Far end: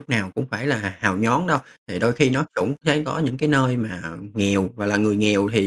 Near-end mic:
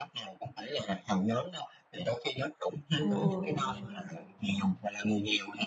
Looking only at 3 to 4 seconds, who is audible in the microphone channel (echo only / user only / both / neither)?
both